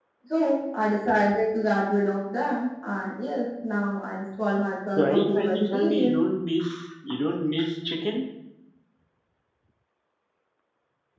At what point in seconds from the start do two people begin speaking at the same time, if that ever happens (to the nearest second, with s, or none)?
5 s